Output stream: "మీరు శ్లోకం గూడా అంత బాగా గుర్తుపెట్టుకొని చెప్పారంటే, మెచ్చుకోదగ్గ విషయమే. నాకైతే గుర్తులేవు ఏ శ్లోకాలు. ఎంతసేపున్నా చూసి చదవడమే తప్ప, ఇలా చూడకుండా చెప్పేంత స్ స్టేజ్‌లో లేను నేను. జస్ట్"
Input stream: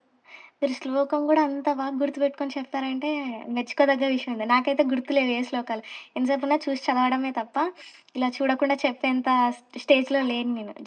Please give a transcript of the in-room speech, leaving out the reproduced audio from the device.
none

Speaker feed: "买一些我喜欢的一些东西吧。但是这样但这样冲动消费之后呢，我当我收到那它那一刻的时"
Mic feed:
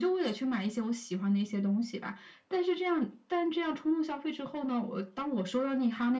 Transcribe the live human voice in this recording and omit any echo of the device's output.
none

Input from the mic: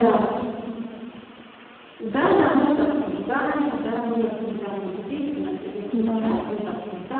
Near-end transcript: да.

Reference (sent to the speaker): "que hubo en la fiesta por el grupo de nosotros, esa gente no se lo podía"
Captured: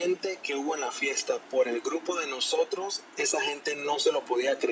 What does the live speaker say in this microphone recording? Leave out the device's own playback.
none

